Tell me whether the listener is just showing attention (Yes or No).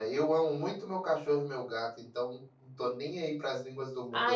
No